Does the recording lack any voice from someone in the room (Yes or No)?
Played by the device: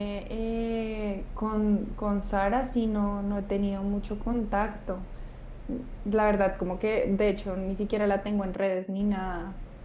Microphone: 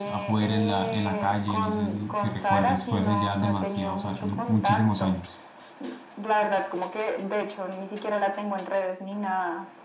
No